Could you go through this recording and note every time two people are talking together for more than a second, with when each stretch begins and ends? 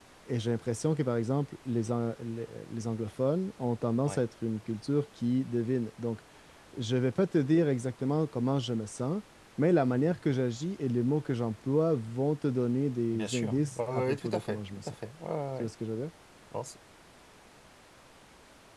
13.1-14.9

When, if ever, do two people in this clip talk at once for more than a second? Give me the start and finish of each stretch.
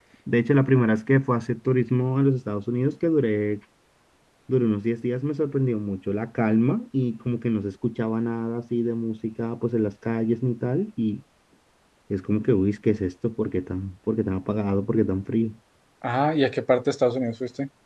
none

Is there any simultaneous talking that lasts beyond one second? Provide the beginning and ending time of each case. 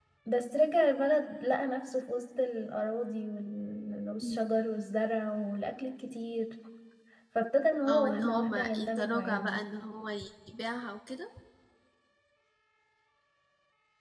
7.9-9.6

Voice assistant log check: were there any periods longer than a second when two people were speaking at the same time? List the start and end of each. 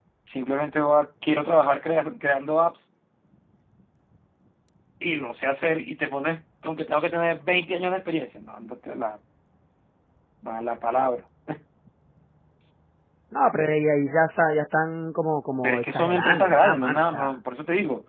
15.6-17.3

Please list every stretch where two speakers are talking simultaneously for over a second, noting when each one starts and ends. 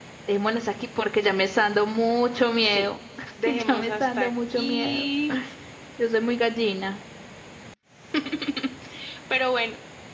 3.5-5.1

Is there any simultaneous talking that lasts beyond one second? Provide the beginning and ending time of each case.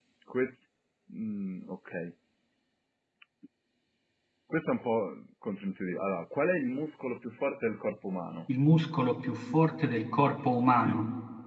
none

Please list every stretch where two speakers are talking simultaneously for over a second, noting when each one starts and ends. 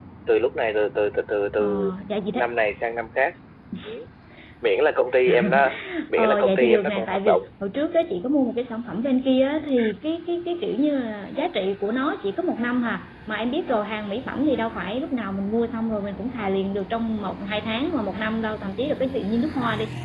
6.1-7.4

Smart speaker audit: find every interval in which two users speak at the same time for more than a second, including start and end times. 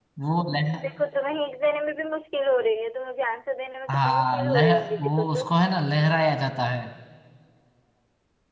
3.9-5.4

